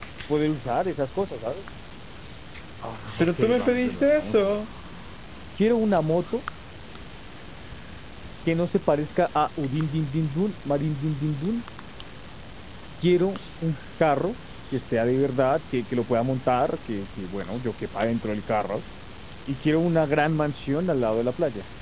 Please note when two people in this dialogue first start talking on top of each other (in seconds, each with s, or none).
3.2 s